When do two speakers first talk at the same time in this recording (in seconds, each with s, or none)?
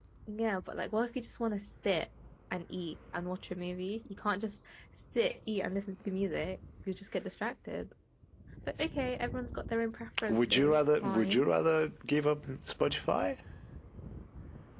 10.3 s